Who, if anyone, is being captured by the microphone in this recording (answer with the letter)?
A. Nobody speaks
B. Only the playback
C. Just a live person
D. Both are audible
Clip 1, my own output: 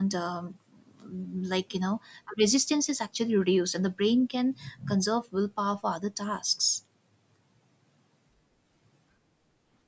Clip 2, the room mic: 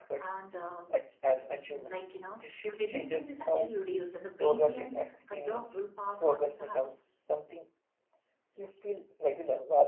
D